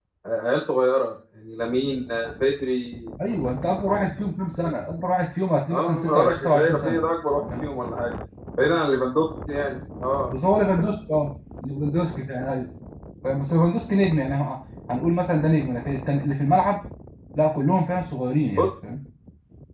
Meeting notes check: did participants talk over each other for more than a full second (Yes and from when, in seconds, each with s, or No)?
Yes, from 5.7 s